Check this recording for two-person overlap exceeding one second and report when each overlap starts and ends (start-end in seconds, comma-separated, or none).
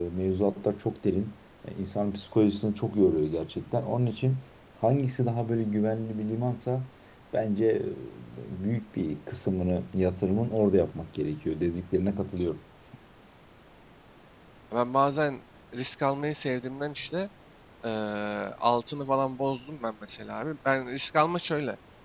none